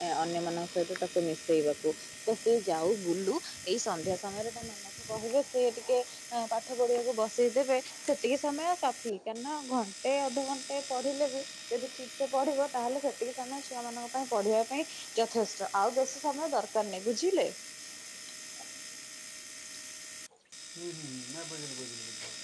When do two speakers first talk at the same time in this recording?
none

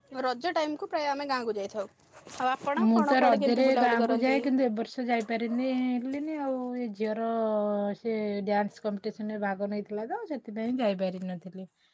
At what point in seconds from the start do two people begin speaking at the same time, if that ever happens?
2.8 s

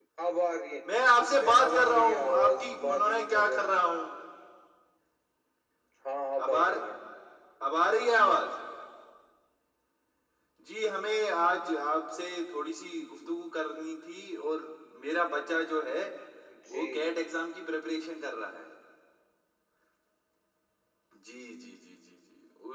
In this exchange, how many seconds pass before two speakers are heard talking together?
1.4 s

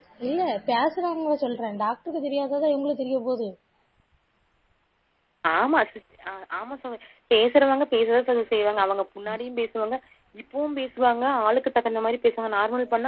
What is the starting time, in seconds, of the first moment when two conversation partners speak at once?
none

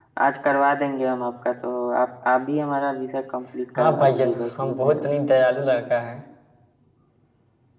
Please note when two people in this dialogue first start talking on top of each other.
3.8 s

